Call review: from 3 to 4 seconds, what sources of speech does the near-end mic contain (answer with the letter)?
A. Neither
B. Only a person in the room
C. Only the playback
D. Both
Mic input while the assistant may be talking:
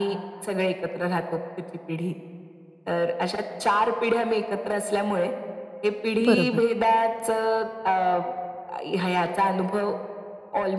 C